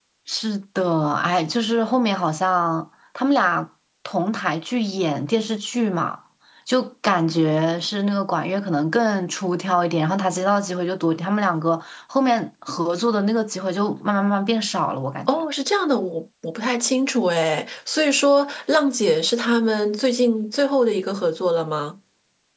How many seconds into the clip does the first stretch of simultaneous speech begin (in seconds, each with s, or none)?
none